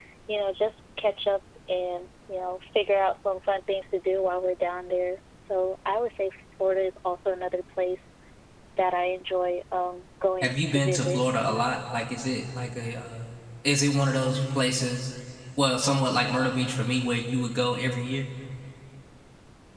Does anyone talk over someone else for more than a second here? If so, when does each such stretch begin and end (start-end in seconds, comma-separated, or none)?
10.4-11.7